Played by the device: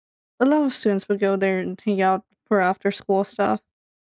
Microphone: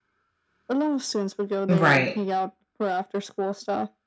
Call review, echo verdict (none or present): present